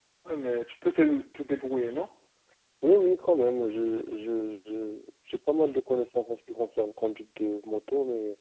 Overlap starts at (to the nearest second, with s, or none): none